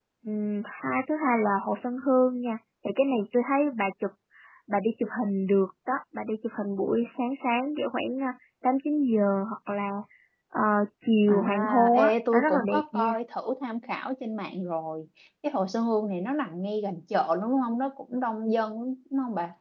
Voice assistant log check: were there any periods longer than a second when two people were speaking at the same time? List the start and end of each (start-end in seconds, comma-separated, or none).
11.3-13.1